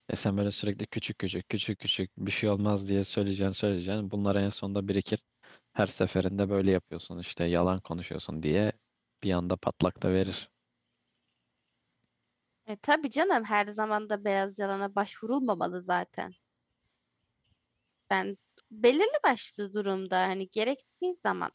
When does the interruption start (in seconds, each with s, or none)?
none